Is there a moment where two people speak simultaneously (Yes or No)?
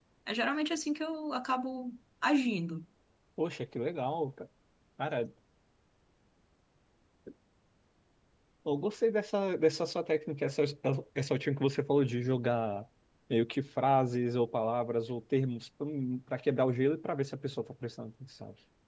No